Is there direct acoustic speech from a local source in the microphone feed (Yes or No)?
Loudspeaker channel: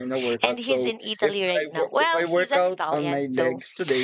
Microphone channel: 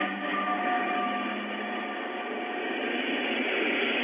No